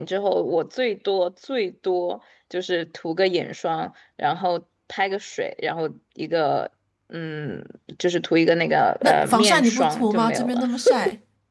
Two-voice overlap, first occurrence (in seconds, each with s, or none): 9.0 s